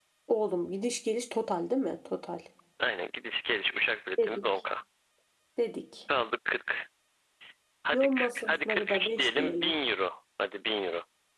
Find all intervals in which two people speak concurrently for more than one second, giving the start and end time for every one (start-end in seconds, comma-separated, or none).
7.9-9.8